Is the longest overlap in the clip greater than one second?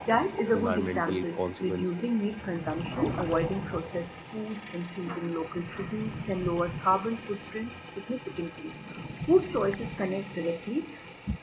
Yes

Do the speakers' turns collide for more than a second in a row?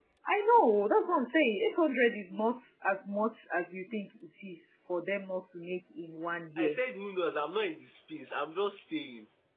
No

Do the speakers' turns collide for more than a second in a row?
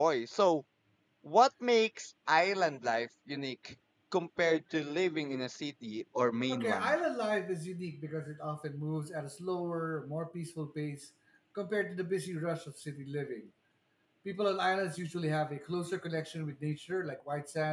No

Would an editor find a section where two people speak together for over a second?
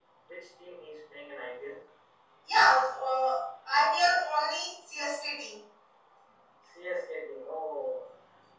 No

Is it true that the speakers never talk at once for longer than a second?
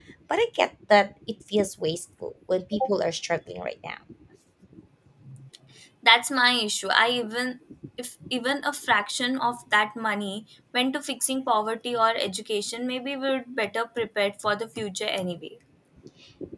Yes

